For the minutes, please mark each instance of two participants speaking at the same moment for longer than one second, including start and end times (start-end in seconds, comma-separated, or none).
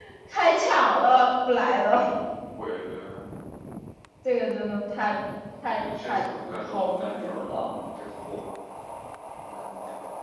5.6-7.7